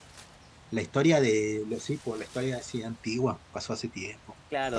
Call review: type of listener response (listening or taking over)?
taking over